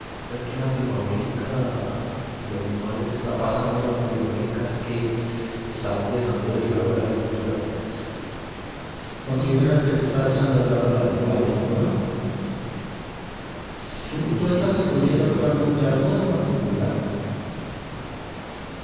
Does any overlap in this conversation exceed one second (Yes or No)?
Yes